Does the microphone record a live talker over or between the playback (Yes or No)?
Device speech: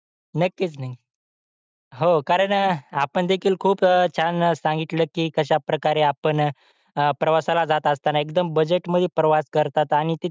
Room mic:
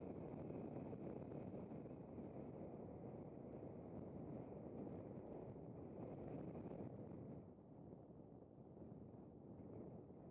No